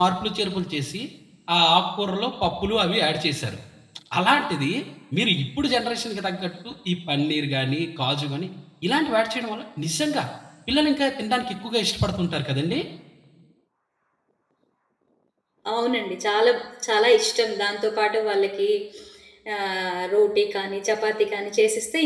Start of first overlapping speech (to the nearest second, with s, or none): none